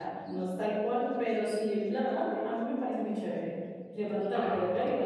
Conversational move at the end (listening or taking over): listening